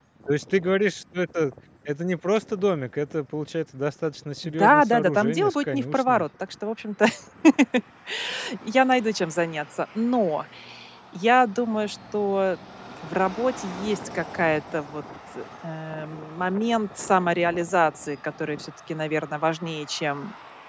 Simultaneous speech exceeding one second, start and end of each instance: 4.4-6.2

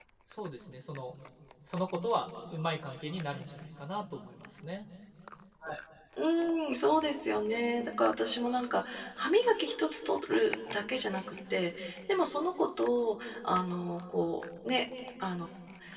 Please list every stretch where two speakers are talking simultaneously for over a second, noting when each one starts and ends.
none

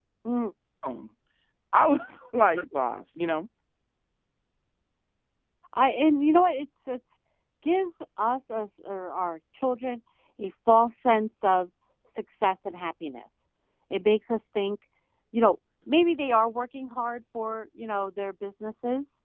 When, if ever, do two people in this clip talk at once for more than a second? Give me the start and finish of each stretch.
none

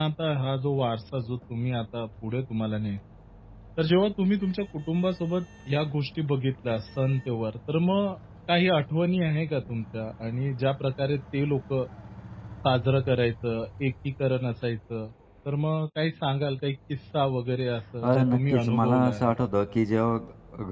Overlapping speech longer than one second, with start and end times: 18.0-19.3

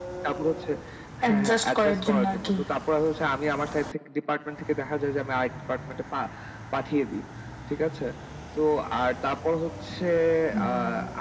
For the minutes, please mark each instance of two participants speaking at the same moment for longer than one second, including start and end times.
1.2-2.5

